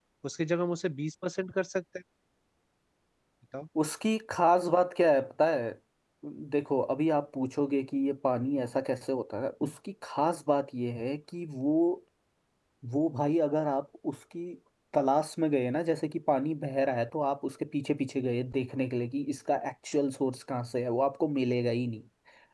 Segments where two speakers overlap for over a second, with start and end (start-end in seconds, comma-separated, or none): none